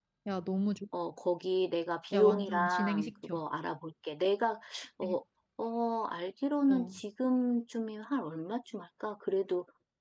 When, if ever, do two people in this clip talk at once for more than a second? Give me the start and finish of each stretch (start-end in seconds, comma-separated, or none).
2.1-3.4